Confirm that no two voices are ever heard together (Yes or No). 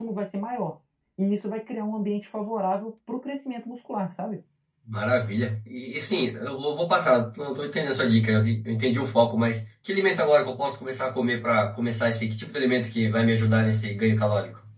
Yes